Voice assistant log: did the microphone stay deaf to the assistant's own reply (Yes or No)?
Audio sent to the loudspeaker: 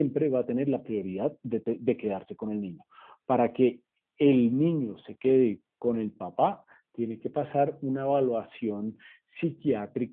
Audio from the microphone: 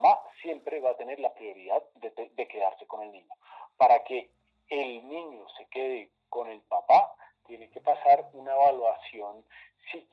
No